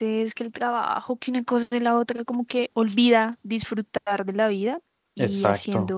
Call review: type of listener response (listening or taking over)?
listening